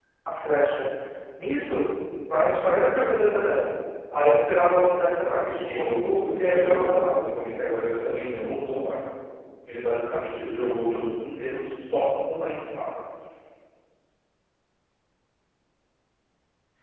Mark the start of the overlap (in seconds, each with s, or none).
5.4 s